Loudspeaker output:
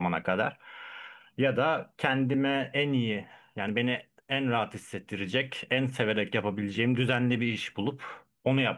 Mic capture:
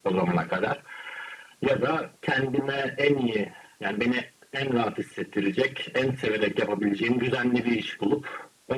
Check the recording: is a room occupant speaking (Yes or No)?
No